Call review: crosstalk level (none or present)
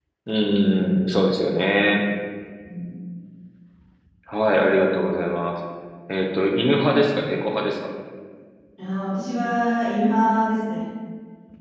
none